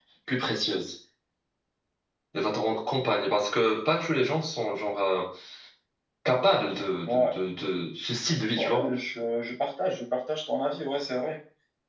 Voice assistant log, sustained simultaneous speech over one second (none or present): none